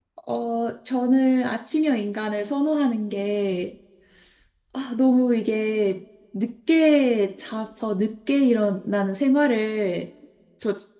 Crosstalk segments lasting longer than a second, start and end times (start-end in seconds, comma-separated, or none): none